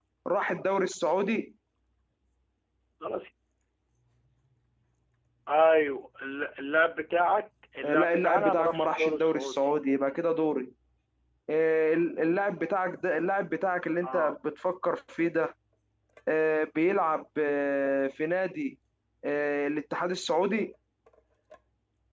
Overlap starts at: 8 s

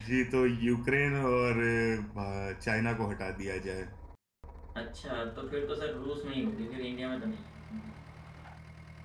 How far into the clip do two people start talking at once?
none

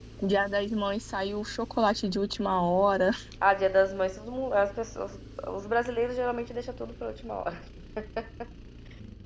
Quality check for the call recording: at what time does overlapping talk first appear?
none

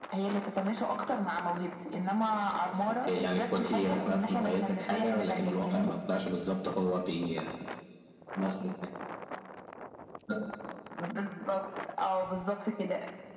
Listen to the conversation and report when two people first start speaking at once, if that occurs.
3 s

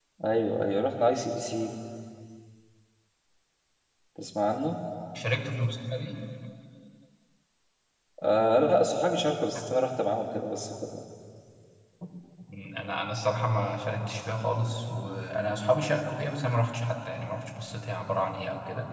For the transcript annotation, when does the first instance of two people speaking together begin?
none

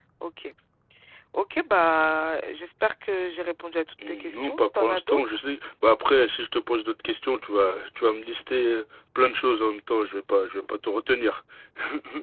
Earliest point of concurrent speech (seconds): 4 s

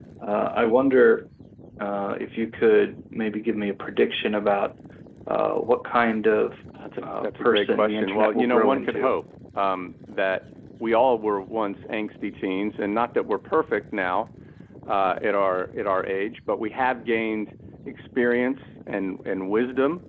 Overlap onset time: 7 s

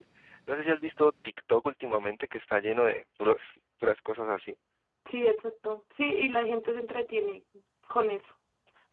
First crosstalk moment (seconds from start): none

